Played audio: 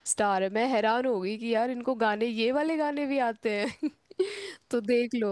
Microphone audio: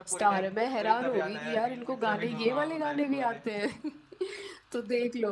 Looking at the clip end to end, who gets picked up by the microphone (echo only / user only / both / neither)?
both